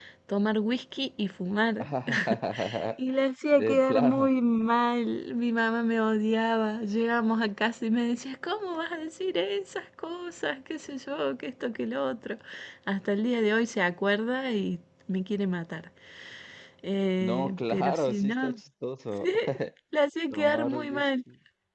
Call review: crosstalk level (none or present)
present